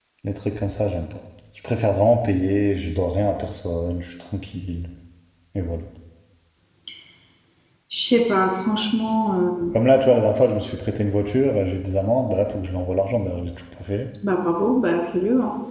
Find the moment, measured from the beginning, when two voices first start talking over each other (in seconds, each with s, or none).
none